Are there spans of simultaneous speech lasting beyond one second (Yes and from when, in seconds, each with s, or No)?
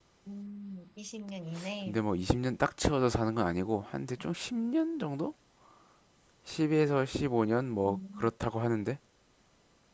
No